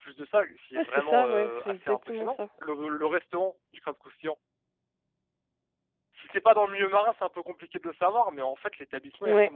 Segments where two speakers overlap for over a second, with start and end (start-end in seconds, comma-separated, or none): 0.8-2.3